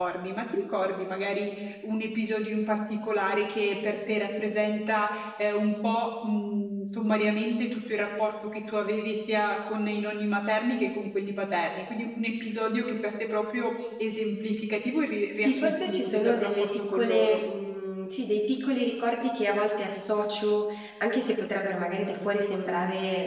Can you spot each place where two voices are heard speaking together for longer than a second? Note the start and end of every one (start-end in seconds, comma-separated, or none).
15.4-17.4